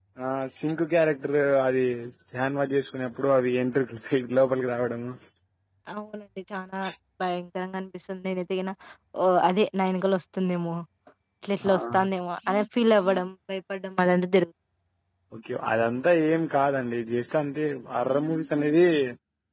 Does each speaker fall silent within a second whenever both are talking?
Yes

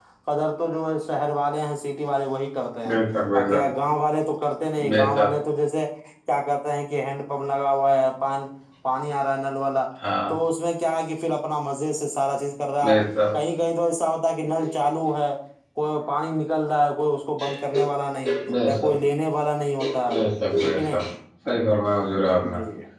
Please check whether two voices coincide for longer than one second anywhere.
No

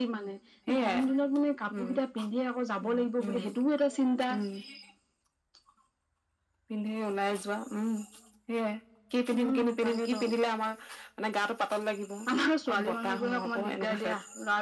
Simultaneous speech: Yes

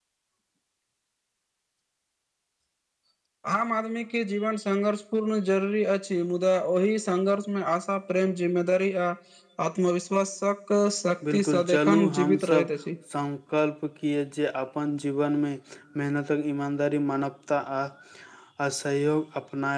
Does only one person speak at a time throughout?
No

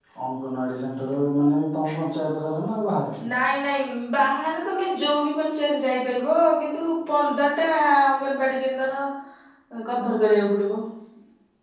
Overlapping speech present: No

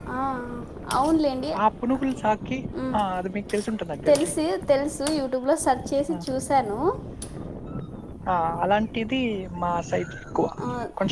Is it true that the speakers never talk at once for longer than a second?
Yes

